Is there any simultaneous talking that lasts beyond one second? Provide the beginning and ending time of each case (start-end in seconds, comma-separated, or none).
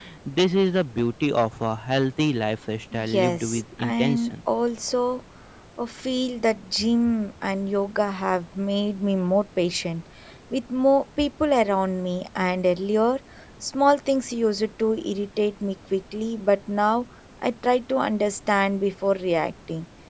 2.9-4.3